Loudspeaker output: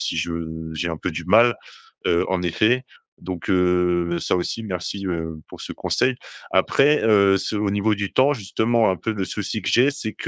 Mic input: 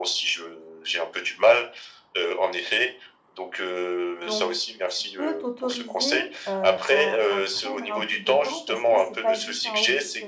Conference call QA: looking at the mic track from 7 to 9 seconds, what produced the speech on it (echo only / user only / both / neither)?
both